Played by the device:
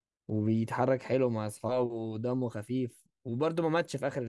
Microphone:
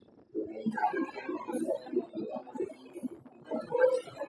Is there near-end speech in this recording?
No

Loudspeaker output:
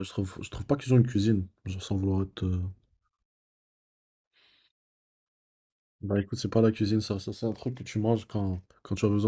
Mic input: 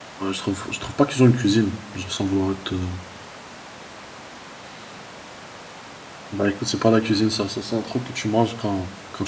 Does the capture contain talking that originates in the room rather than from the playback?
No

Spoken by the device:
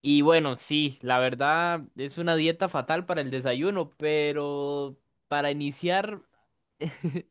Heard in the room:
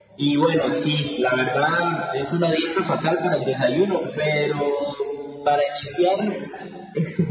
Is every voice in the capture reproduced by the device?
Yes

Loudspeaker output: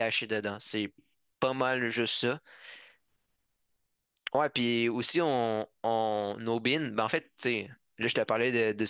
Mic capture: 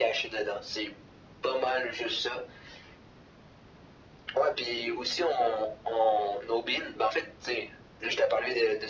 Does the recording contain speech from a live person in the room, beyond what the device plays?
No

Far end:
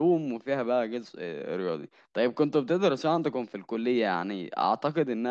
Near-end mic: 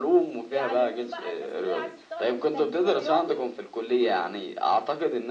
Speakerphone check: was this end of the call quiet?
No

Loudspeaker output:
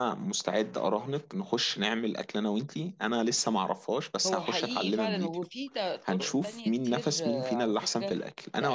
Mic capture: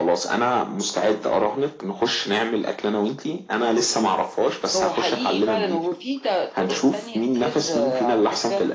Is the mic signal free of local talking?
Yes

